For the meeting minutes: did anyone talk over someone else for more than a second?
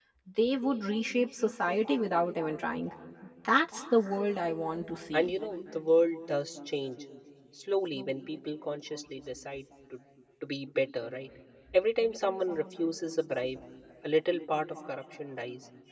No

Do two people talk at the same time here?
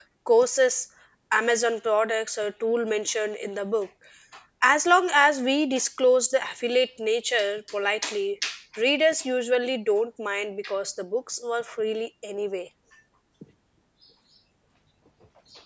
No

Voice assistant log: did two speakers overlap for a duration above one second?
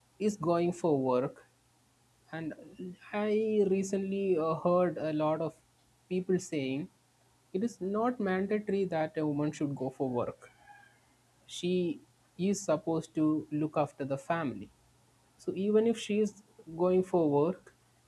No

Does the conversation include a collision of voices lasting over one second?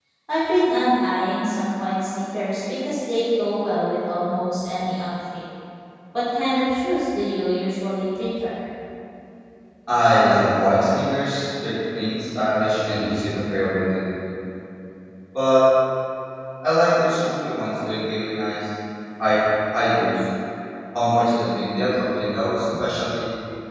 No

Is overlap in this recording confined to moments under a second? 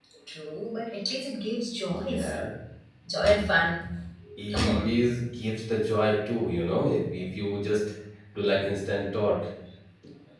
Yes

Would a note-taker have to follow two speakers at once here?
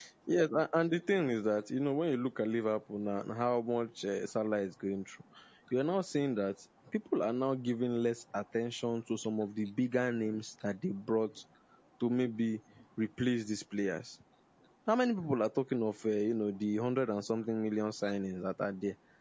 No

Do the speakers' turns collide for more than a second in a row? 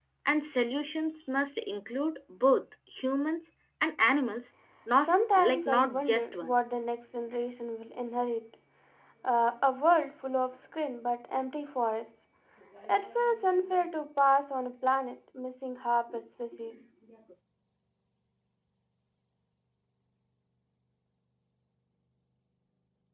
Yes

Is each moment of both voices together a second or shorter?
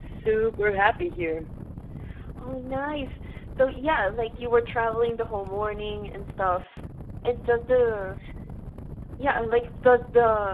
Yes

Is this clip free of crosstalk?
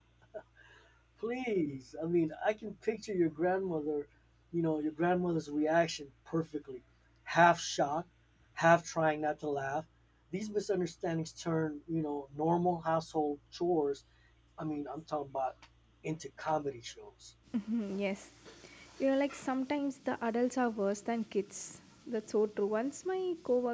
Yes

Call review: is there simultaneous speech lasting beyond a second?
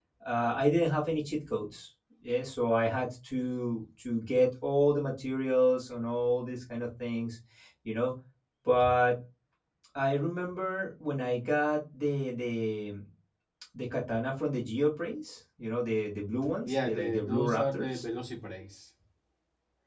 Yes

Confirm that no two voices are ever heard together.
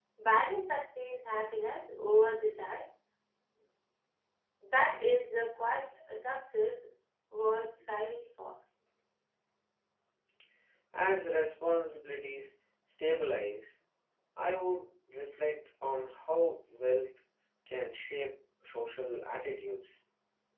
Yes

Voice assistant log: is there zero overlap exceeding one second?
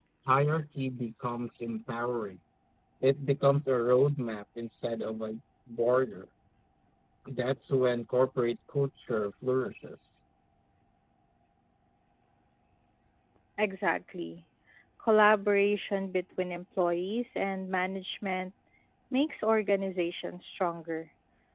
Yes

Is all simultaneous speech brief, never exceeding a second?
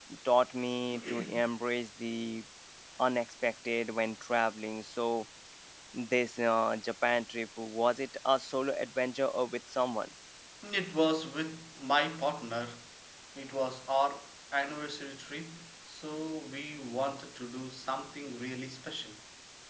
Yes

